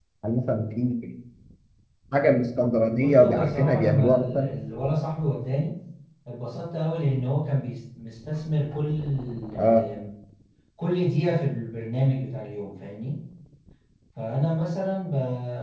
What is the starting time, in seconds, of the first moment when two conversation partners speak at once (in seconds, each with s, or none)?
3.0 s